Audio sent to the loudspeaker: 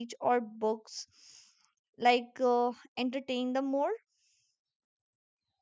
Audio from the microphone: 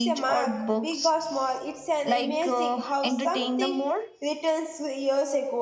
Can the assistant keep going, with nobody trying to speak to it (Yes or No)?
No